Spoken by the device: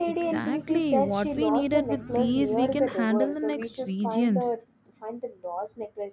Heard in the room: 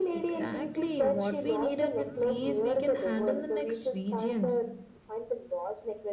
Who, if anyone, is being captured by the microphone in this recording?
echo only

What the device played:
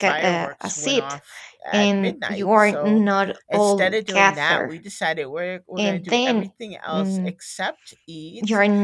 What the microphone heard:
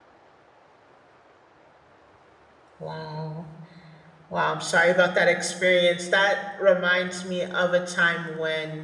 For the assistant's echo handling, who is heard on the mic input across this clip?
user only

